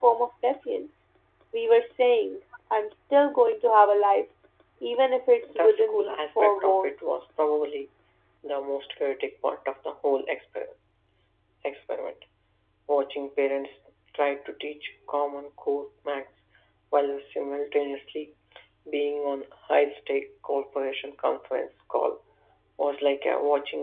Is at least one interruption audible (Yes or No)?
Yes